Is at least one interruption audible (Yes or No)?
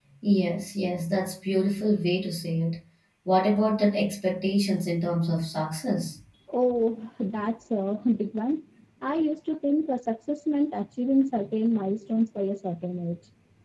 No